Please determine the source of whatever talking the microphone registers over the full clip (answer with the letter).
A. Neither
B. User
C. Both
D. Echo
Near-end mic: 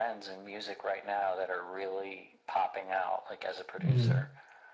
C